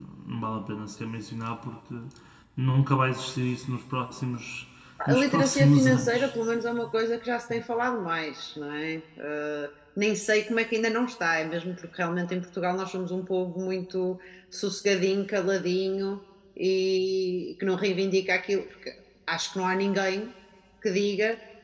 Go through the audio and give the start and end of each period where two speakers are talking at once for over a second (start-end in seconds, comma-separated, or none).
5.1-6.3